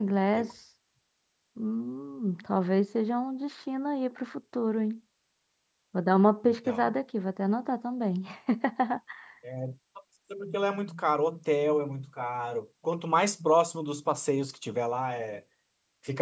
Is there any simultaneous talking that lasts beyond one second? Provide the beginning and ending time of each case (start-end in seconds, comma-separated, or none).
none